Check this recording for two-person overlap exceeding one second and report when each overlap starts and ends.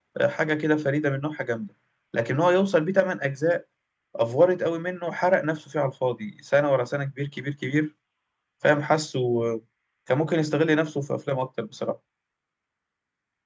none

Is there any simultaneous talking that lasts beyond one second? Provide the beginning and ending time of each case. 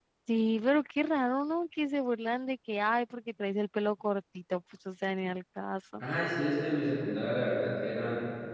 none

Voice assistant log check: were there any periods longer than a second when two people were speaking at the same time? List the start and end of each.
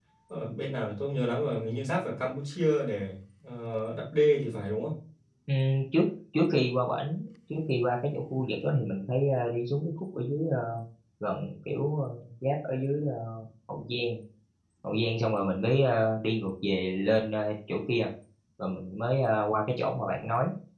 none

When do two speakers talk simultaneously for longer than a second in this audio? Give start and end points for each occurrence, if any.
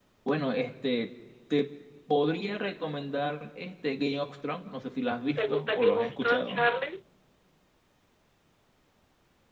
5.4-6.7

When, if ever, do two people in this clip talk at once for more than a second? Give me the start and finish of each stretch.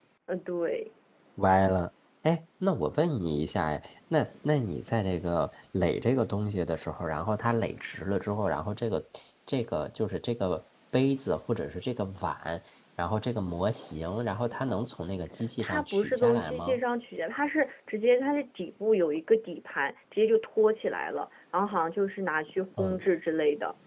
15.6-16.8

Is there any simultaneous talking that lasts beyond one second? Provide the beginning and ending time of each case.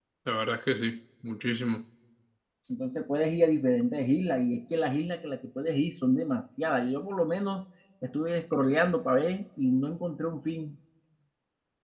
none

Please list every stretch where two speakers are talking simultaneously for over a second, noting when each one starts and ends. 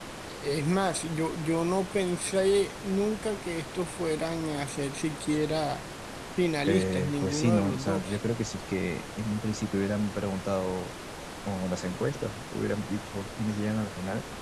6.7-8.2

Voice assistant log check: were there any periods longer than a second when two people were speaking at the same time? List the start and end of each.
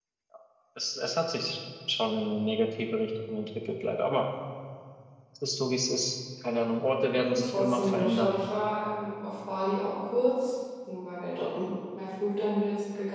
7.1-8.3

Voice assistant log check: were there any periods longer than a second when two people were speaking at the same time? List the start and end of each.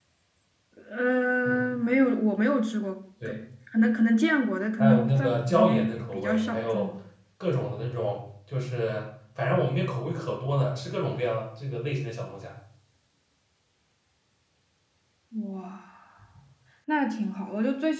4.8-6.9

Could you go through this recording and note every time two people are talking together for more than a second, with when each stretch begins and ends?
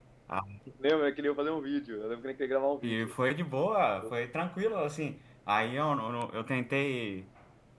none

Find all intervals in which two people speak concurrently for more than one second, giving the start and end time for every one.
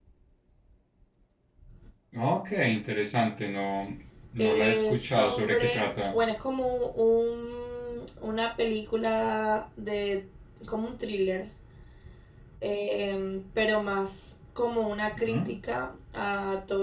4.4-6.2

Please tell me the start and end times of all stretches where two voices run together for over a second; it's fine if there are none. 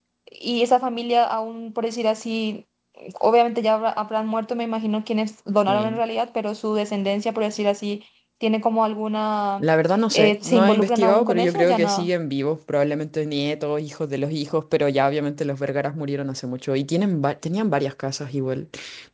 10.1-12.1

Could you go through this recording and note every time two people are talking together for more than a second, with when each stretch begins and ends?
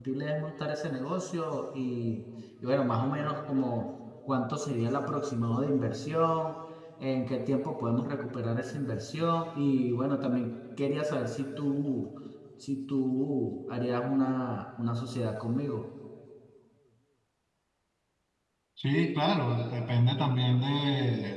none

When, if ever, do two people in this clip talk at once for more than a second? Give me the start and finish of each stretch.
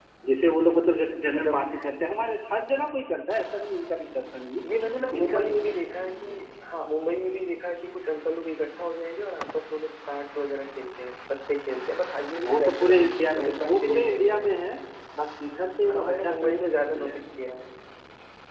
12.4-14.5, 15.9-17.2

